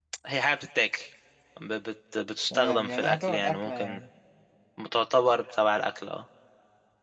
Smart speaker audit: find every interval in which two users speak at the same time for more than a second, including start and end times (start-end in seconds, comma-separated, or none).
2.5-4.0